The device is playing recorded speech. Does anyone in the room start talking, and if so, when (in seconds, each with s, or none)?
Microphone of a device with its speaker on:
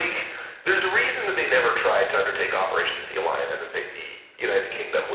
none